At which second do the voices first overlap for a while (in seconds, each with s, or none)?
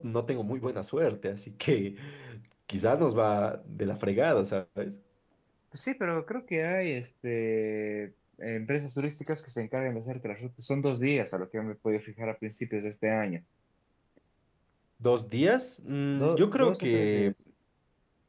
16.1 s